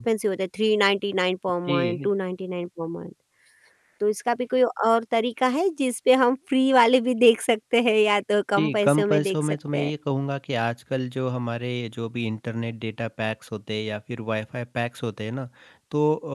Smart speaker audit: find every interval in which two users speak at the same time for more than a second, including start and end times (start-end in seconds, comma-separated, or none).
8.6-9.9